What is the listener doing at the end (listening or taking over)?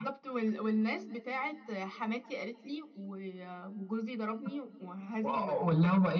taking over